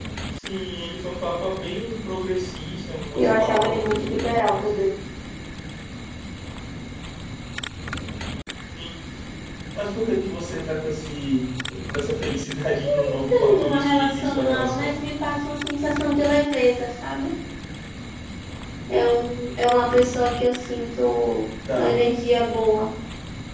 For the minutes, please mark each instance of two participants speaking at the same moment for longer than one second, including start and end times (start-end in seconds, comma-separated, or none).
3.2-4.7, 13.1-15.0